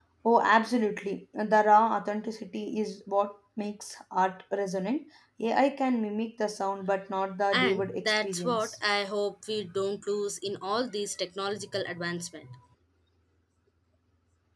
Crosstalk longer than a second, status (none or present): present